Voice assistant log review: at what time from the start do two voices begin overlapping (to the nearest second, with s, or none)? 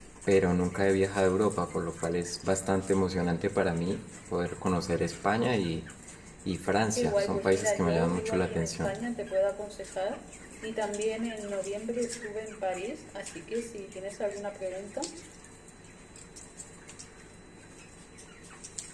7 s